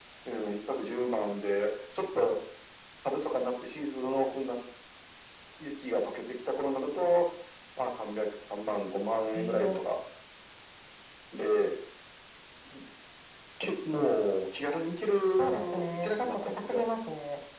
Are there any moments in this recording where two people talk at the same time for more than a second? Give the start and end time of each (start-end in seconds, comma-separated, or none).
15.4-16.8